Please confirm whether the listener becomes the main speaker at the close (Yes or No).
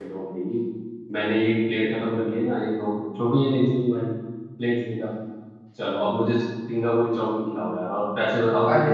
Yes